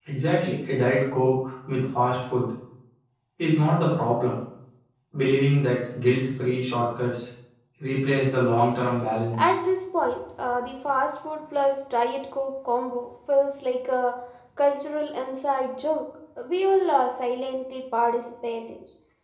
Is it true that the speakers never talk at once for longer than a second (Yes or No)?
Yes